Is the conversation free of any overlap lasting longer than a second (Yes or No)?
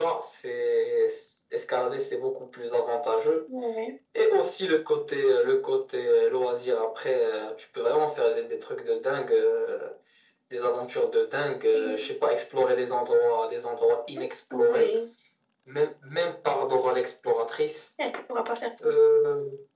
Yes